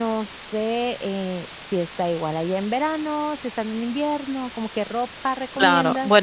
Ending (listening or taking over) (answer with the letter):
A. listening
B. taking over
B